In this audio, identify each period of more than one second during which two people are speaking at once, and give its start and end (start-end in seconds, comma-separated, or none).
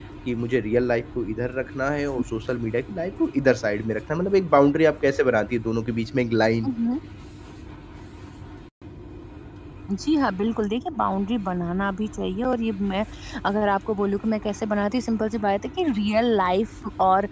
none